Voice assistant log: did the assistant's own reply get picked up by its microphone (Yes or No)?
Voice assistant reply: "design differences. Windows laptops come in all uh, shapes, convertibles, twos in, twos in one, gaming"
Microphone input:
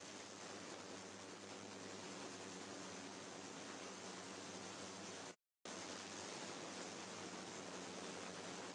No